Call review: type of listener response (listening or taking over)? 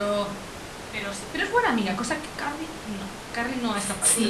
taking over